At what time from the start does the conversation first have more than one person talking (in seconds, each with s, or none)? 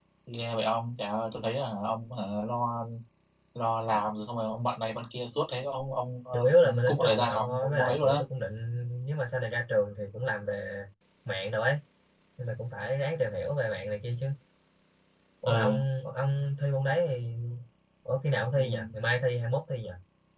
6.3 s